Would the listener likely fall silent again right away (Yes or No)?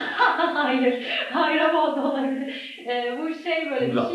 Yes